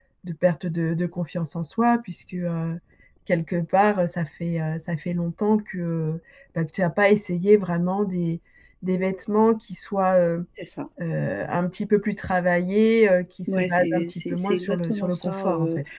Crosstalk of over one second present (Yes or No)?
Yes